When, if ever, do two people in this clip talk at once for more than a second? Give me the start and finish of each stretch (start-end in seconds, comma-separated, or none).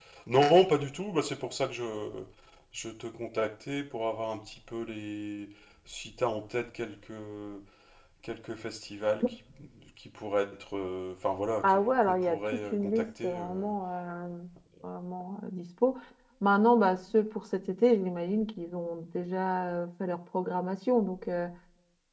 11.6-13.7